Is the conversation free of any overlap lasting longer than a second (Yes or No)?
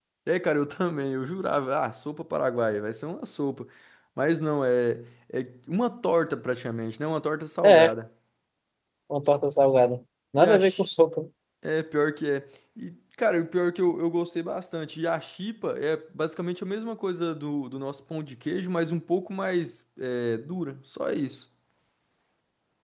Yes